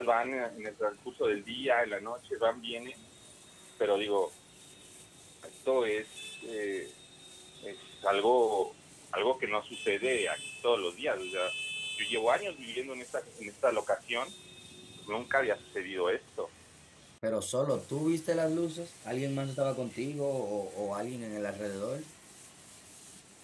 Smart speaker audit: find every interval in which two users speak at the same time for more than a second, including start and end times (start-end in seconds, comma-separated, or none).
none